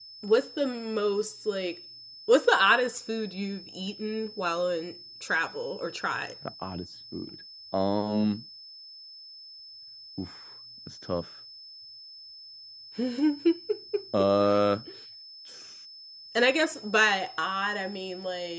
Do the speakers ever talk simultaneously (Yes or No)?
No